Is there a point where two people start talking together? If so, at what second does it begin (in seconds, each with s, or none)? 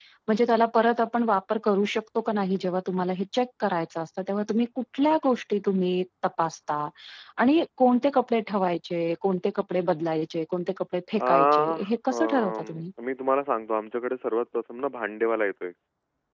11.2 s